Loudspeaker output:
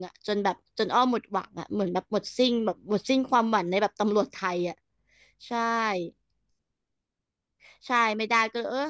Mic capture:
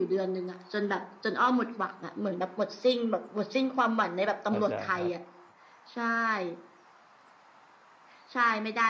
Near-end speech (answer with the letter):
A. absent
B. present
B